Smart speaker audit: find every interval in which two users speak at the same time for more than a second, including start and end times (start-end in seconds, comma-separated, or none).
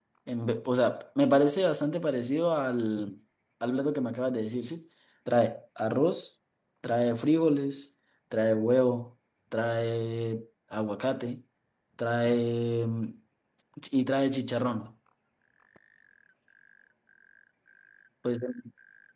none